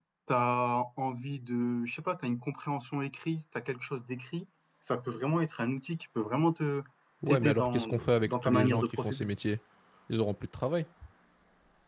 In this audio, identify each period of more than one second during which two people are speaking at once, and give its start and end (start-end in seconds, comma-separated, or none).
7.3-9.3